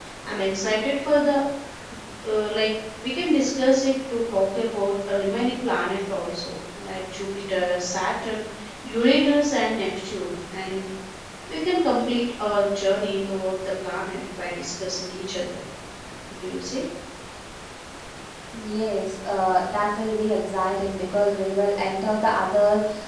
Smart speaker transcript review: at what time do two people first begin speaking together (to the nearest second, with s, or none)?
none